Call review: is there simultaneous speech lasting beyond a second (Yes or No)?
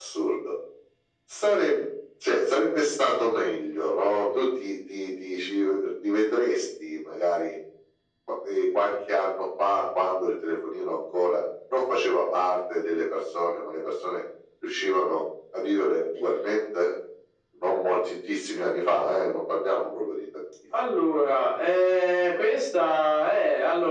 No